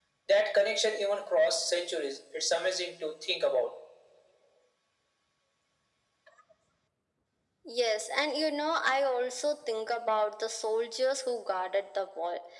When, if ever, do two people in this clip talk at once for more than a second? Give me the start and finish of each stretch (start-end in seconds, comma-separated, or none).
none